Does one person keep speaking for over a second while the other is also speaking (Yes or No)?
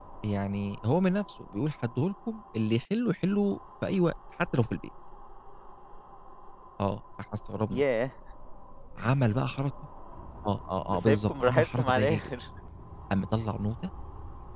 Yes